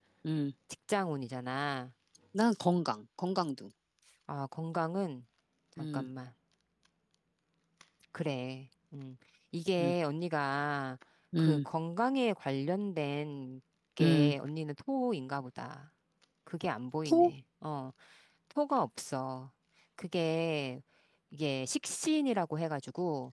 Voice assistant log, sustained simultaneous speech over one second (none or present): none